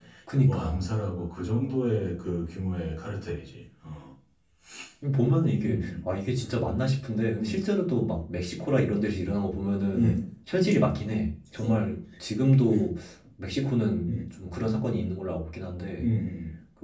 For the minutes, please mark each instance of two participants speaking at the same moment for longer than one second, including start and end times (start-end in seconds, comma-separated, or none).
none